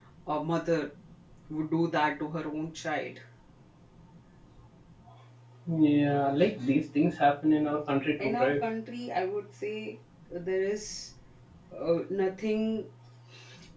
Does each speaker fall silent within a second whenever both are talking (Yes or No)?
Yes